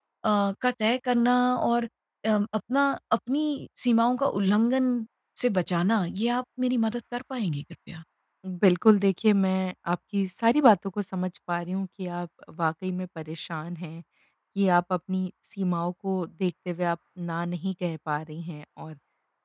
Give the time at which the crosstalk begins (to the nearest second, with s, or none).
none